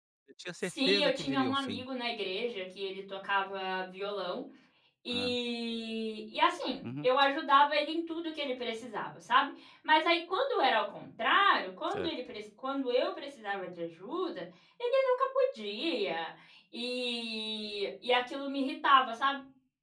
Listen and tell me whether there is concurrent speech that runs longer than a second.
Yes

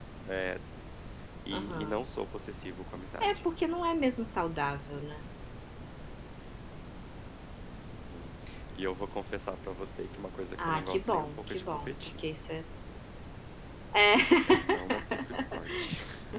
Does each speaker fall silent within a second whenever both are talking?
No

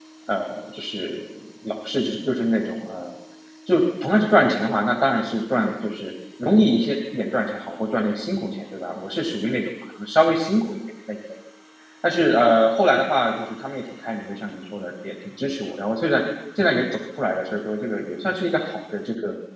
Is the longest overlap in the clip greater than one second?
No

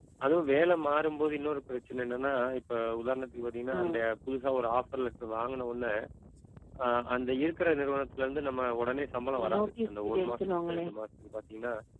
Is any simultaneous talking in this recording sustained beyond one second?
Yes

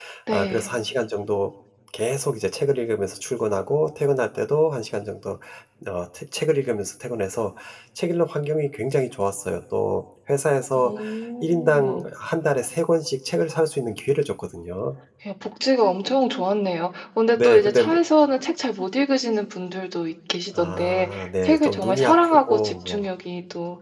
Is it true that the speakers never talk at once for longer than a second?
No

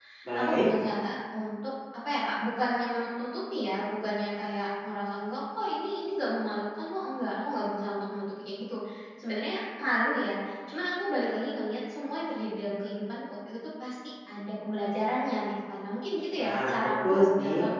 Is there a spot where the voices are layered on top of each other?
Yes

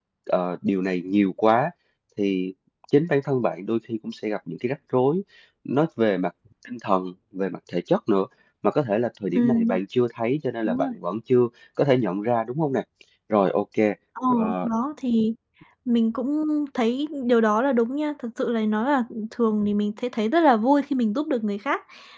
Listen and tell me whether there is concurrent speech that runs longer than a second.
No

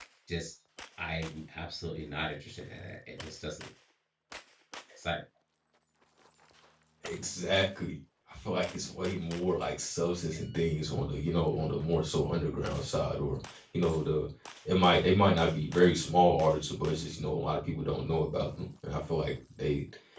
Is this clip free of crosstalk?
Yes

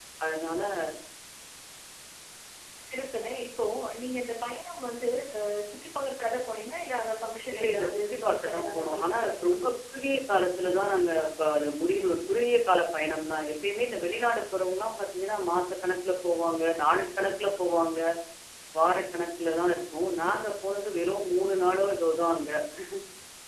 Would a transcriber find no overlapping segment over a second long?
No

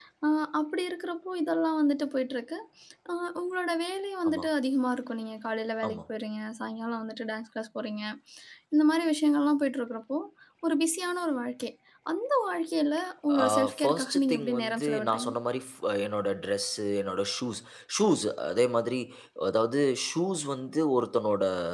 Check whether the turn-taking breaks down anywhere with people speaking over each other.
Yes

